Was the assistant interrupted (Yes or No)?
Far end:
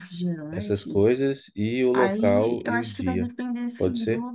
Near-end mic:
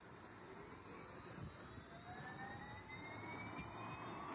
No